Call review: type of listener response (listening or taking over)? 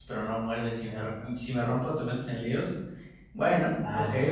taking over